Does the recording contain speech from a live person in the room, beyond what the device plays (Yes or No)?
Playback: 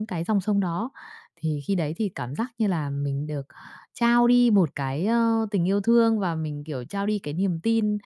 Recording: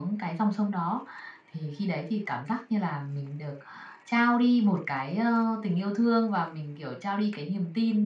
No